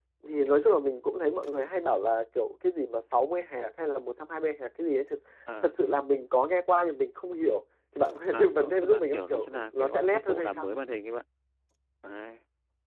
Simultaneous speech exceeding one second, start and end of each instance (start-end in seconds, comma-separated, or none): 8.3-10.7